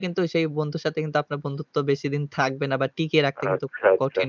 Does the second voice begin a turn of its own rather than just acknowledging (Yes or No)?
Yes